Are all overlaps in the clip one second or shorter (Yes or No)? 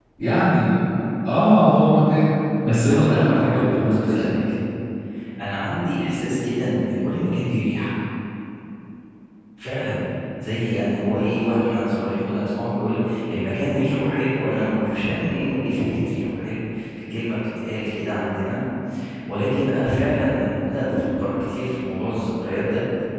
No